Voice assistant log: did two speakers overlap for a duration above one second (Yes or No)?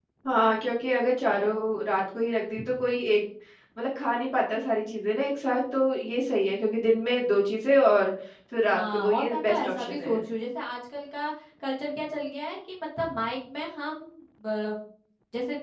Yes